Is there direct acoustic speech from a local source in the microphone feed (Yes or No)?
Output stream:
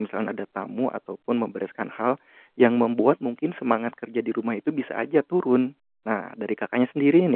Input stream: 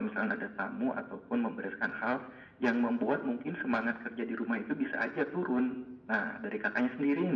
No